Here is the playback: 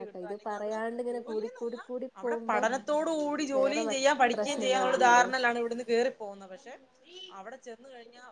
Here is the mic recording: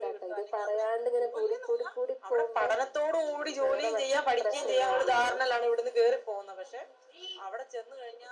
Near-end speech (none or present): none